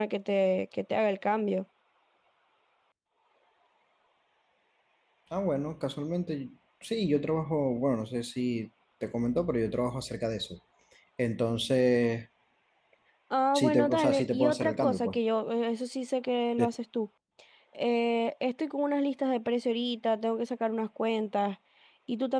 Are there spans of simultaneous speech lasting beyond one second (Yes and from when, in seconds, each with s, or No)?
Yes, from 13.5 s